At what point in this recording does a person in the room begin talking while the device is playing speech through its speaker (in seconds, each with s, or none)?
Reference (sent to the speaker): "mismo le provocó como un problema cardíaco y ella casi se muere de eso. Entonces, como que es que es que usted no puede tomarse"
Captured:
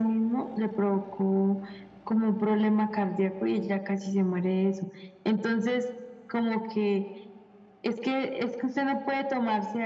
none